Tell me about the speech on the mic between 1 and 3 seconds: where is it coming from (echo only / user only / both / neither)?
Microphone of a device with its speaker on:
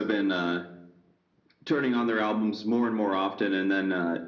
echo only